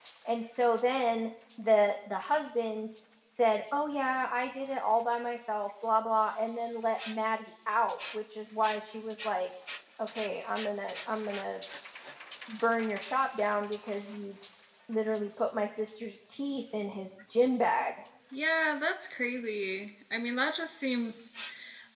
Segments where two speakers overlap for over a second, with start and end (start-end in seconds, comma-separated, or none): none